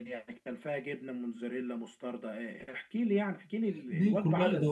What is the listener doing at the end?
taking over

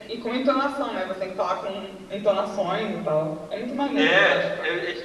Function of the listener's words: taking over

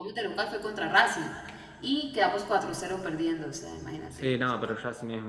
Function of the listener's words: taking over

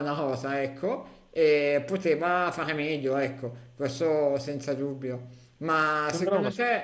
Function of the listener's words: listening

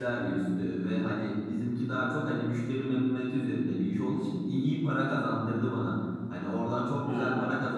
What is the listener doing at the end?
listening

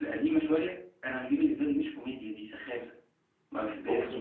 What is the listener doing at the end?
taking over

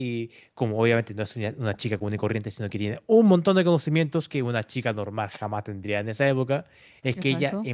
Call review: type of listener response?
listening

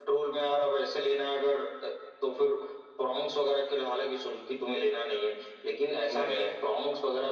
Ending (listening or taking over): listening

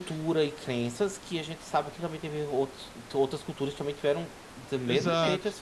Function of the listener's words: taking over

